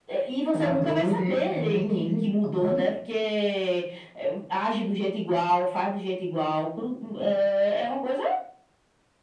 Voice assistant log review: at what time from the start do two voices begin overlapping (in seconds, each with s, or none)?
0.5 s